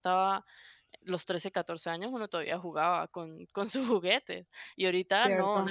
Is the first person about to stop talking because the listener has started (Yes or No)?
Yes